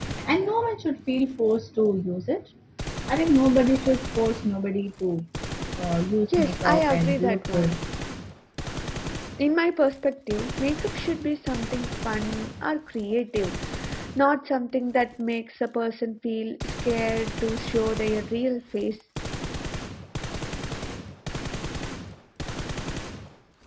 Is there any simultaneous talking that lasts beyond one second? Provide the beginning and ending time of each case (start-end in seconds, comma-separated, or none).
6.4-7.8